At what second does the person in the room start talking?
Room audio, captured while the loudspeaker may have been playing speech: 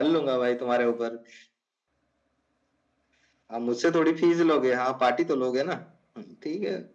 none

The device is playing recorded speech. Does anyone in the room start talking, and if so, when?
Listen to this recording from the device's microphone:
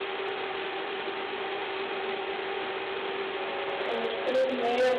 3.9 s

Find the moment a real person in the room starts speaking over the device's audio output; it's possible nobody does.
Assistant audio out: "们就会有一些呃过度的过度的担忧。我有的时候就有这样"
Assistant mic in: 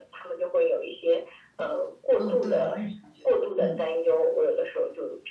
2.2 s

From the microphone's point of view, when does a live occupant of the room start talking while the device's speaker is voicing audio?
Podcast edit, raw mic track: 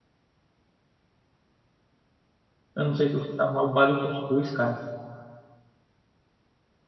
2.8 s

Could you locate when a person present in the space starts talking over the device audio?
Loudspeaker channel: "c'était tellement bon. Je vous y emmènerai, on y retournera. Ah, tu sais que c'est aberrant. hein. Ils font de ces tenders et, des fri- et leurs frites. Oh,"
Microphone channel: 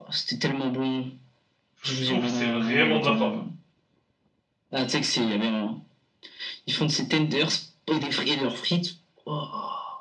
1.7 s

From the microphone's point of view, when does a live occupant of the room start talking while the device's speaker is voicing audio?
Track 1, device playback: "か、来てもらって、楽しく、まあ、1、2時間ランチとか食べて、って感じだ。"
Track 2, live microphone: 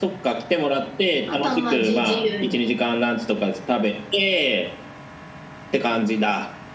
1.2 s

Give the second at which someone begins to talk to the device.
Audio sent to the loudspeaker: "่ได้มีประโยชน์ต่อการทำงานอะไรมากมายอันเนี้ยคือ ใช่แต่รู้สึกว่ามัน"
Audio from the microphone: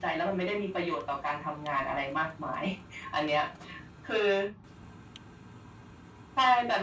none

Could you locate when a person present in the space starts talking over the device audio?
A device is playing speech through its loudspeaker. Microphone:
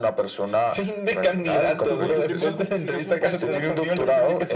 1.4 s

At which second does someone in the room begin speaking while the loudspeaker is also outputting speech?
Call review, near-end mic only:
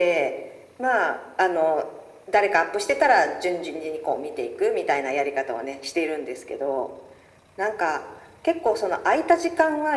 none

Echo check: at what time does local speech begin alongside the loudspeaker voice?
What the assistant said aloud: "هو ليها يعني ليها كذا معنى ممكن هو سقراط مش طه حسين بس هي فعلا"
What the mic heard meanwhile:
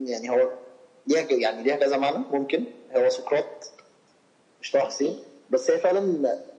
none

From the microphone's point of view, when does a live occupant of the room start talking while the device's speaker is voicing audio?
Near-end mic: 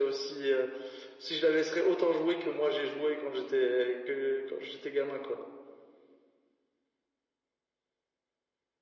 none

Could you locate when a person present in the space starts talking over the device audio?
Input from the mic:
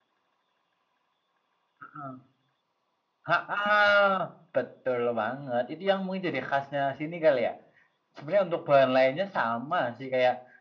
none

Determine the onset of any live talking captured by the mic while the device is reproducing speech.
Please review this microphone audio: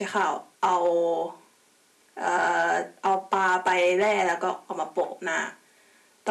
none

